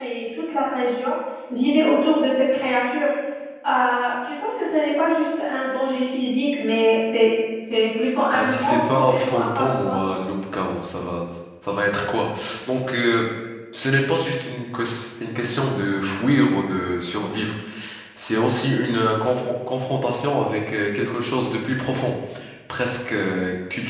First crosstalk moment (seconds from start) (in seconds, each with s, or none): 8.3 s